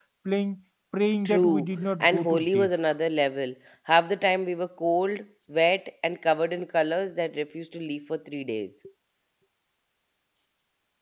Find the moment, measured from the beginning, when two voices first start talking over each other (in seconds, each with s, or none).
1.2 s